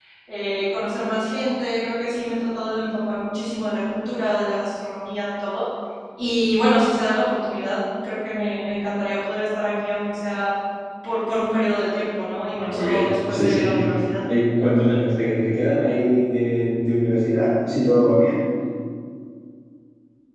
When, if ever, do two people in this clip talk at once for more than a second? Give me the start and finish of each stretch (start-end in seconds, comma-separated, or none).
12.6-13.8